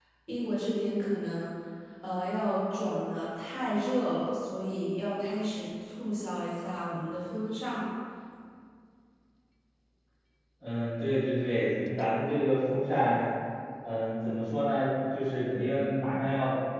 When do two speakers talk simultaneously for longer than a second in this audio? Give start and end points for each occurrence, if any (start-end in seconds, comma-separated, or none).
none